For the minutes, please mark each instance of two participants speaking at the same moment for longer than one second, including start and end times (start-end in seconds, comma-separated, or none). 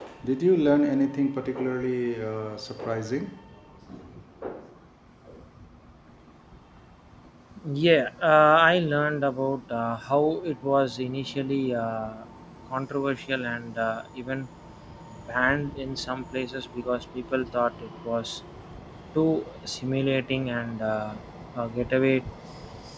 none